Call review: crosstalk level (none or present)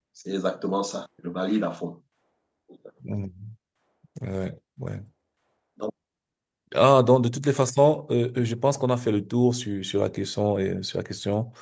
none